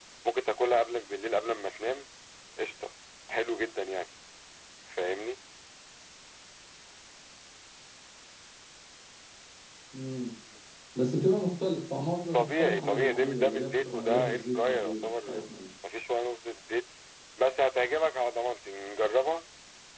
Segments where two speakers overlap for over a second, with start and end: 12.3-15.4

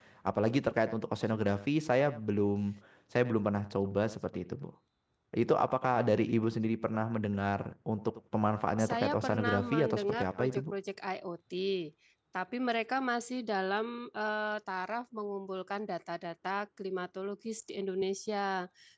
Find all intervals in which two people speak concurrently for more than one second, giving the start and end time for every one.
8.8-10.6

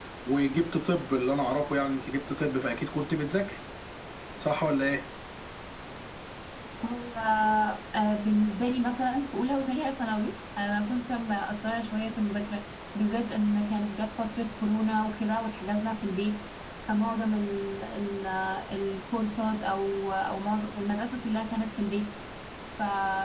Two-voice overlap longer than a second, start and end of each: none

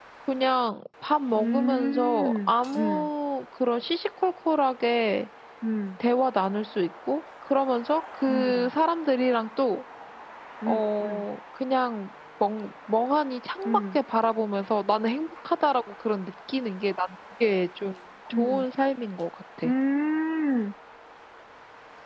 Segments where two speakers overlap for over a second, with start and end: 1.4-3.1

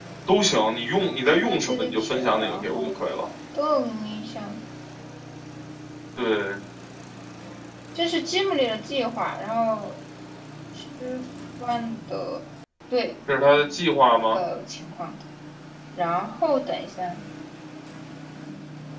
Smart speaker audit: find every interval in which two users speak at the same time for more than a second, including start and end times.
1.4-2.9

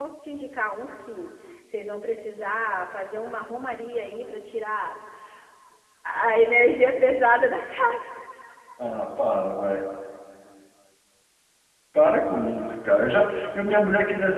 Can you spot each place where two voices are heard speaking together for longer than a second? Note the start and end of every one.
none

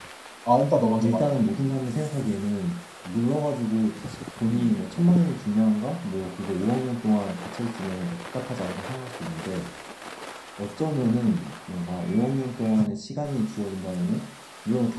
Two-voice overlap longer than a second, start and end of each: none

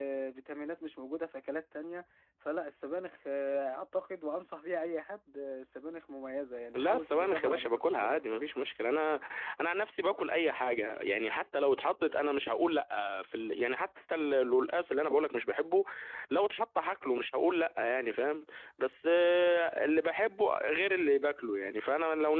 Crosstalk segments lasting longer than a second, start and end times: 6.7-8.4

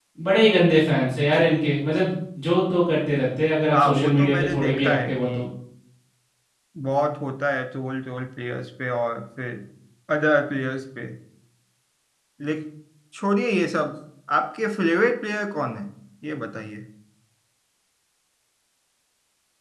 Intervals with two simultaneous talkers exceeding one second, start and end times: 3.7-5.3

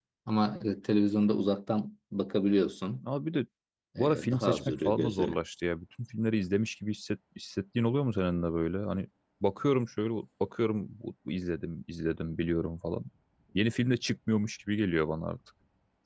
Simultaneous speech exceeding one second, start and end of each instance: 4.0-5.3

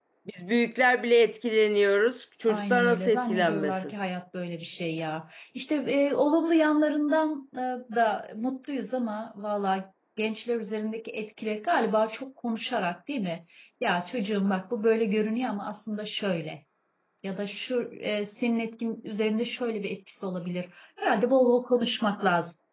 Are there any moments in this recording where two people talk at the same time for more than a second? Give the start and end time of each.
2.5-3.9

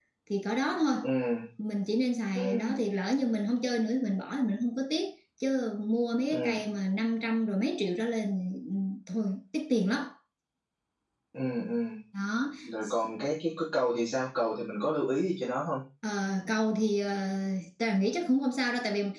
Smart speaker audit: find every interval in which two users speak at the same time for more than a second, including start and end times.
none

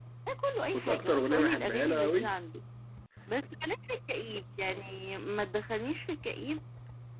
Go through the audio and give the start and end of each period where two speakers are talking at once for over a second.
0.7-2.3

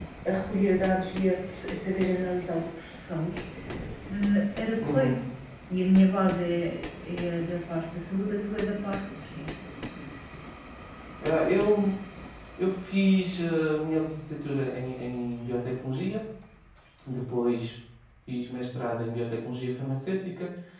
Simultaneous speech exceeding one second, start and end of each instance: none

